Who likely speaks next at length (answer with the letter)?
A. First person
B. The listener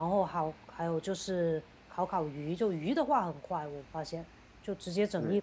A